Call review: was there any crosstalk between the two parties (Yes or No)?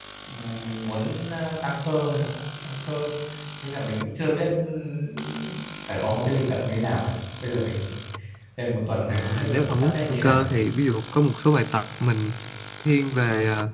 Yes